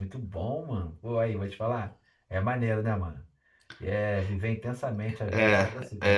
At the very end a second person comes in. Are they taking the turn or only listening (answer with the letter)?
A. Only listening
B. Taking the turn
B